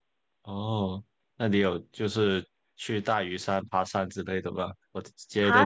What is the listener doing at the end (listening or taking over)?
listening